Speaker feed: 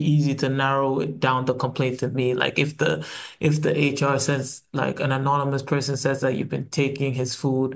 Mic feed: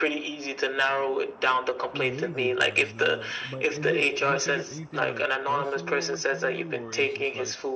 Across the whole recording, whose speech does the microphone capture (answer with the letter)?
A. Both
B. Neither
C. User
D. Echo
A